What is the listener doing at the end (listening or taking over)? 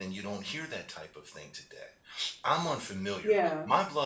listening